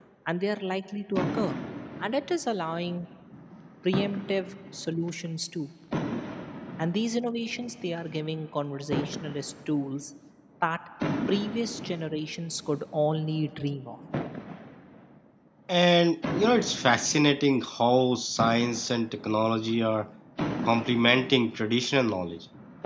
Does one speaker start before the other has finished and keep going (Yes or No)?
No